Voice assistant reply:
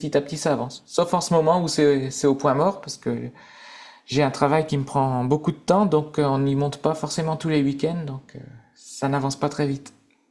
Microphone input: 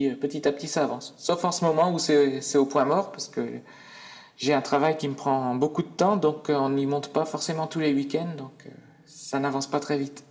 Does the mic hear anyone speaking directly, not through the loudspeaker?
No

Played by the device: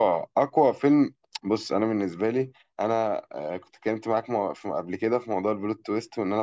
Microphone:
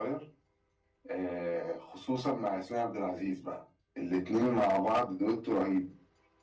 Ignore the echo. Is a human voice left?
Yes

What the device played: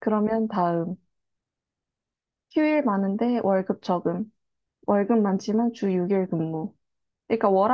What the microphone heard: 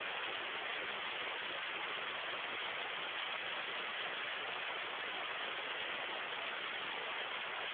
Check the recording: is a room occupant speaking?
No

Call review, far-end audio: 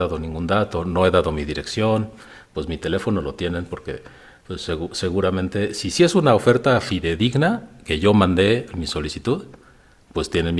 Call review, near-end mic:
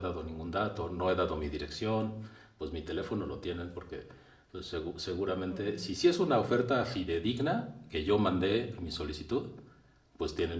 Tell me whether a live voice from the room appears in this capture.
Yes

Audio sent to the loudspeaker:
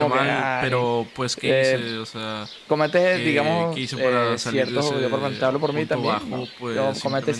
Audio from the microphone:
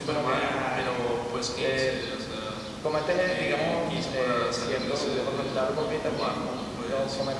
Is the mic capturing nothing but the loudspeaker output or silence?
Yes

